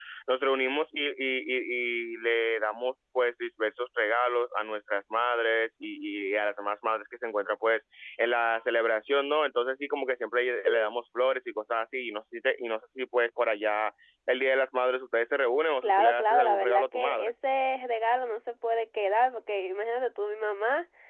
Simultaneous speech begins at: 16 s

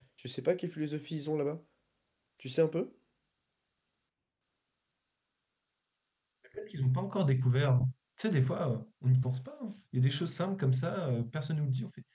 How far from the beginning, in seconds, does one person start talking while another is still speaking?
none

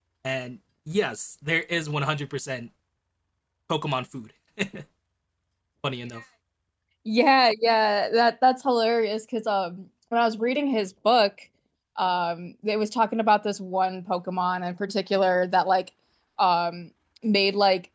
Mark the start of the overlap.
none

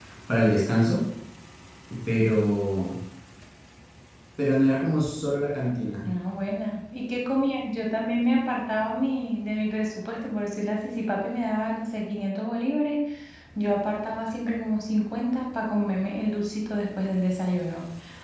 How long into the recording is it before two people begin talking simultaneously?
none

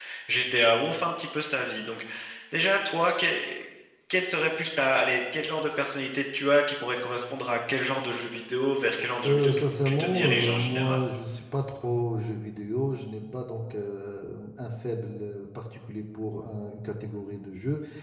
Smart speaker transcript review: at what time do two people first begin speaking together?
9 s

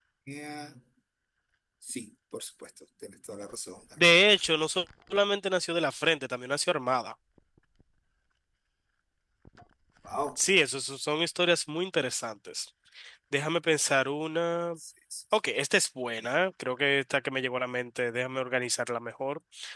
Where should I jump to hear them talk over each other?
none

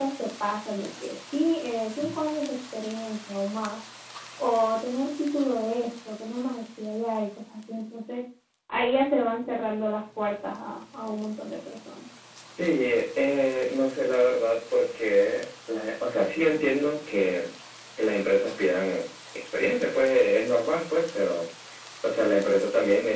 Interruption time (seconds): none

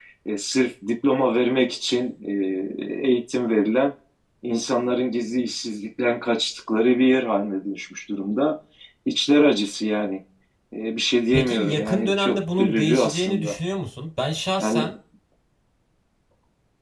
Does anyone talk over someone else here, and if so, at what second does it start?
11 s

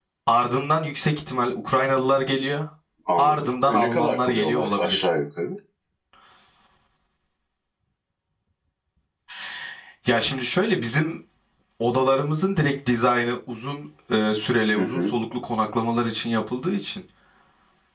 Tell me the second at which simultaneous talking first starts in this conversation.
3 s

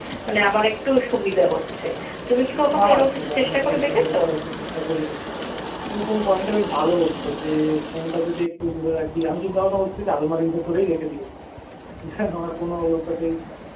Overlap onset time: 3 s

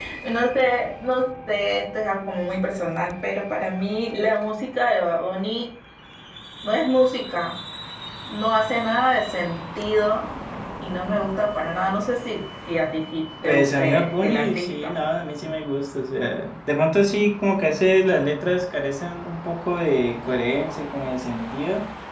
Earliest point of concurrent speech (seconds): 13 s

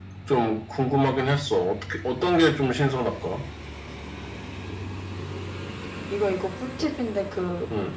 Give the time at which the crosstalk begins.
none

